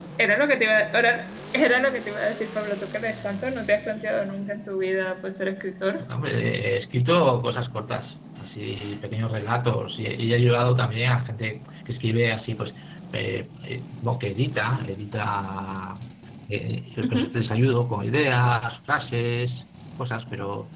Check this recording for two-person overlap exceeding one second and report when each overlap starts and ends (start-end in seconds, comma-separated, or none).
none